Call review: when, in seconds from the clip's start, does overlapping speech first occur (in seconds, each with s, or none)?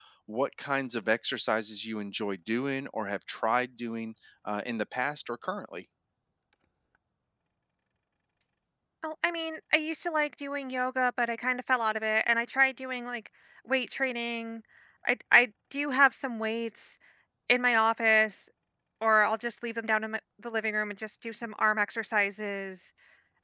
none